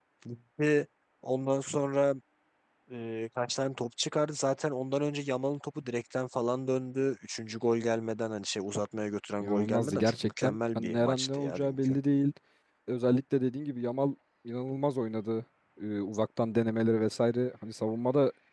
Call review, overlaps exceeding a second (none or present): present